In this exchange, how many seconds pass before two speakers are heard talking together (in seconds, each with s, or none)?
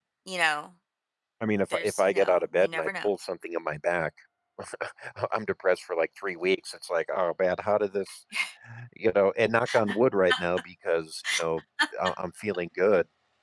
1.7 s